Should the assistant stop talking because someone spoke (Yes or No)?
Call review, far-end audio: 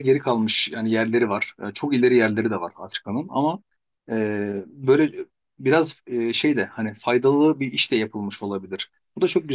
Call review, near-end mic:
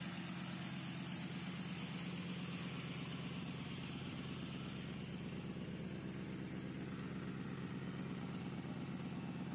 No